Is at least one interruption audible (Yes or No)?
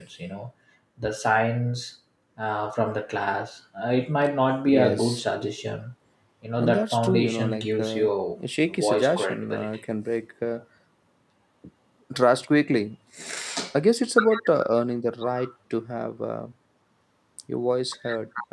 Yes